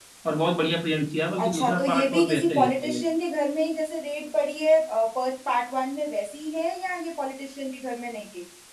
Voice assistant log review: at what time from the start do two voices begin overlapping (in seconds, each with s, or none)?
1.4 s